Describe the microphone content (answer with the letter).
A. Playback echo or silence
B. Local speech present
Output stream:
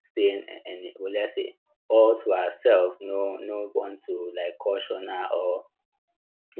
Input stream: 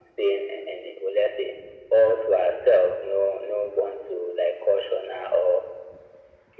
A